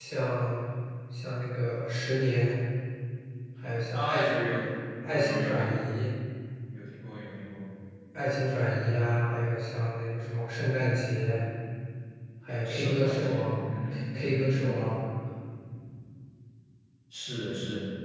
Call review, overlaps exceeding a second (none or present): present